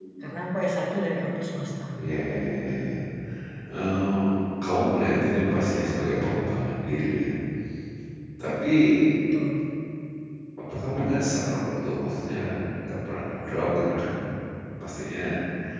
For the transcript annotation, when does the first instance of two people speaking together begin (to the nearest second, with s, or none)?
none